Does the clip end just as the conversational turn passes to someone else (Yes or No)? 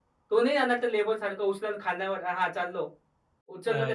No